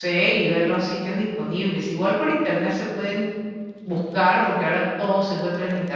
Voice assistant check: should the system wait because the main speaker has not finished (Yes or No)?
Yes